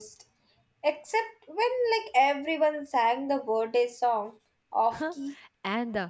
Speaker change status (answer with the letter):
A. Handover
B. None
A